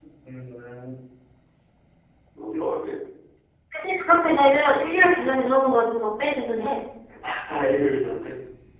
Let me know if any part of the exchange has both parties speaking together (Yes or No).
No